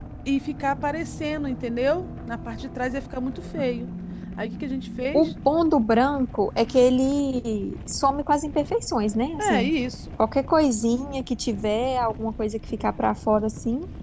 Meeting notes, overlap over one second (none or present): none